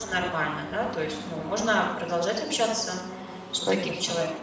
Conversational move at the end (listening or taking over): taking over